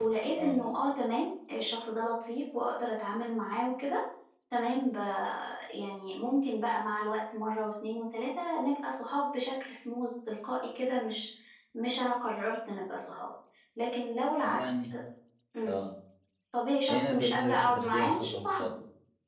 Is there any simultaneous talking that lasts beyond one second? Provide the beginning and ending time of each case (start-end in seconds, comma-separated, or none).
16.9-18.7